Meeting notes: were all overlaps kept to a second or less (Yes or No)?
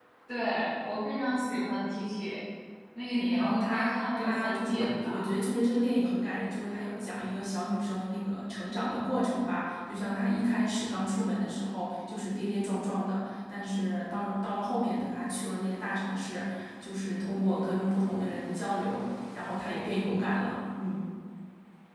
No